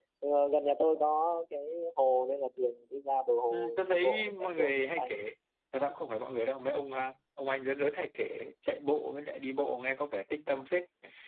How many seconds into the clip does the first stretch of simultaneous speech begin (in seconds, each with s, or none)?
3.5 s